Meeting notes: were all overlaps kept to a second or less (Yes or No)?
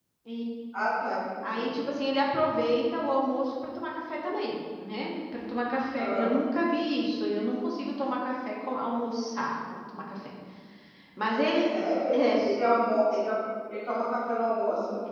Yes